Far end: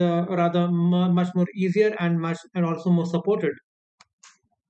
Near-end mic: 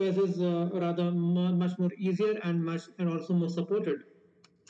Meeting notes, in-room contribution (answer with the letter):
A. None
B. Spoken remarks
A